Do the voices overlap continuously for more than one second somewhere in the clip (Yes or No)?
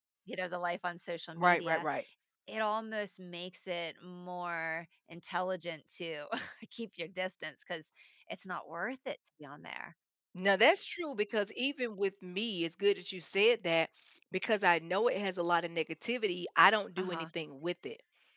No